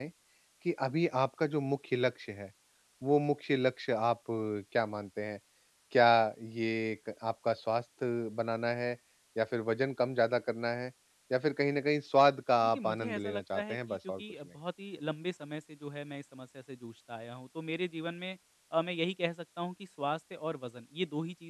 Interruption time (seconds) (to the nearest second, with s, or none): 13 s